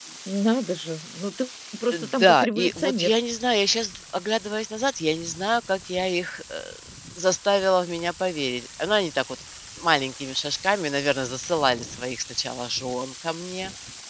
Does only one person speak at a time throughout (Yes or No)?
No